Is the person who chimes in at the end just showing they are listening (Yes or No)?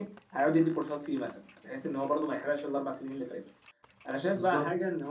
Yes